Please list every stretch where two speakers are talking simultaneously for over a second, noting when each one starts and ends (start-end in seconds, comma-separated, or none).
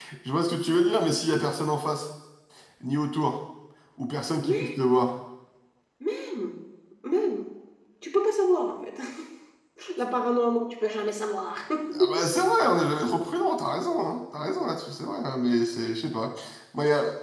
none